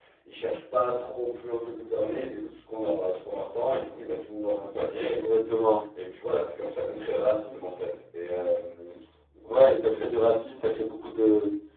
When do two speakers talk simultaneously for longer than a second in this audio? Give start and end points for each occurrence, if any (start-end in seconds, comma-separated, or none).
none